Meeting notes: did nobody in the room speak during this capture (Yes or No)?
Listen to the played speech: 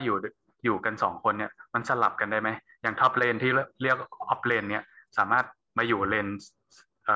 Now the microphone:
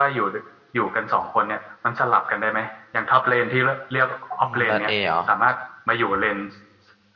No